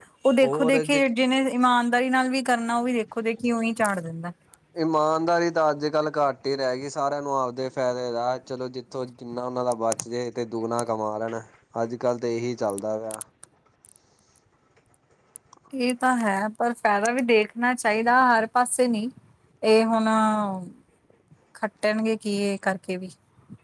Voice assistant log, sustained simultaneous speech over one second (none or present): none